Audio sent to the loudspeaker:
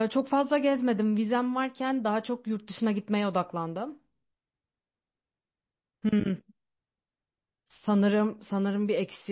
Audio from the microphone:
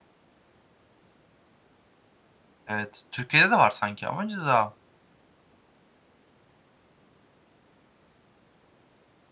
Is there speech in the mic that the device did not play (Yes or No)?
Yes